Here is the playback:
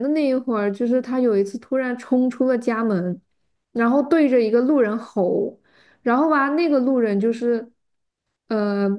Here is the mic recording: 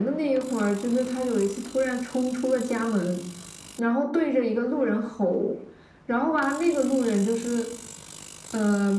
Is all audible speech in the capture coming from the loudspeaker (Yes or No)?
Yes